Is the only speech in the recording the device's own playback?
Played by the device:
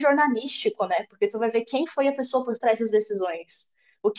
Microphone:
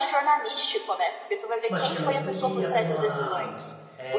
No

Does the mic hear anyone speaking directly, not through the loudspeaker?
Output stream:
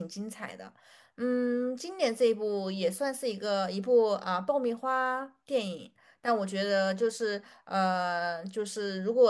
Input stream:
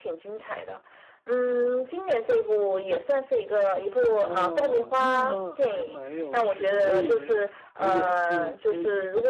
Yes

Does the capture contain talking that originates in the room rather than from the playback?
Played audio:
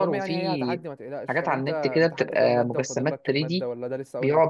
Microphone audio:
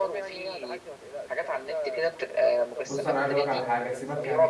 Yes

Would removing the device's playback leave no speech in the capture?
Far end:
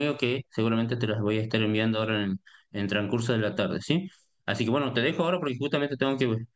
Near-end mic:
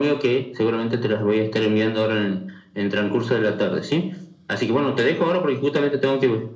Yes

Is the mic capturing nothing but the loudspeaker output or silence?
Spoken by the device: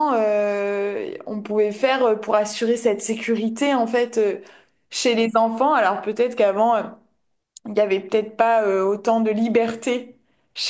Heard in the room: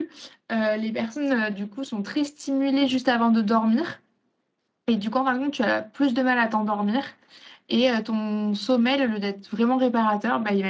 No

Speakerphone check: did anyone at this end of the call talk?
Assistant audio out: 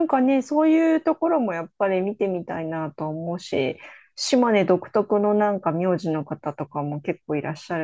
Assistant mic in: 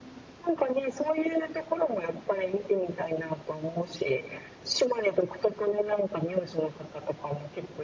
No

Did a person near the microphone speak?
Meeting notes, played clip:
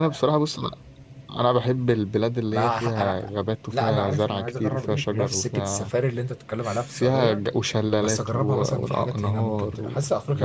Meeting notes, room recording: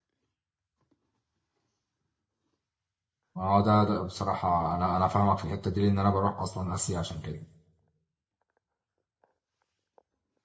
Yes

